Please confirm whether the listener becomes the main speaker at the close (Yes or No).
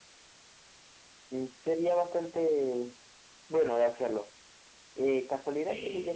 No